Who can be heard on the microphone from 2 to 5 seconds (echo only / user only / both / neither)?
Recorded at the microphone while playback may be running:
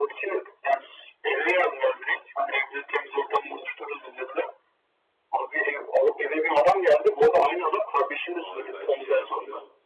echo only